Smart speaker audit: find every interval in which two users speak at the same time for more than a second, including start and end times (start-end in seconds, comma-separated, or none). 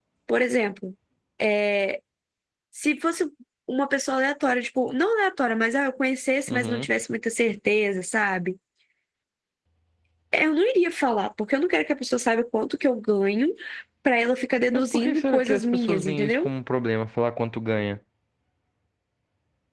14.7-16.5